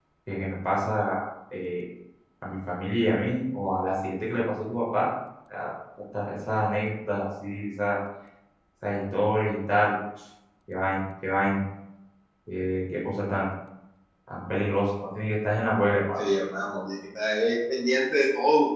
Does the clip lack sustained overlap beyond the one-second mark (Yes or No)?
Yes